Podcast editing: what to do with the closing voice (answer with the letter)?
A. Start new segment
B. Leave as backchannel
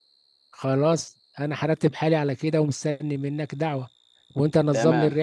B